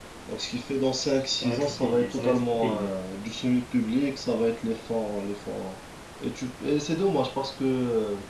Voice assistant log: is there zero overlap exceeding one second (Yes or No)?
No